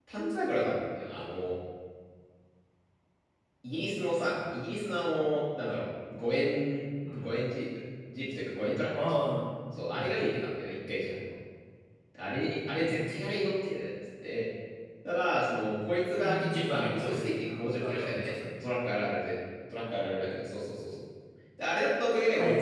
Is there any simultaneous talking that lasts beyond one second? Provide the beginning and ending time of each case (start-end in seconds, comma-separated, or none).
16.2-18.4